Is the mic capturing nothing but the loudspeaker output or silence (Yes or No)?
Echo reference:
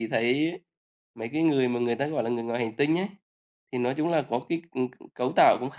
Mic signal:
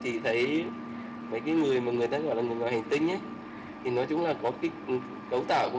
Yes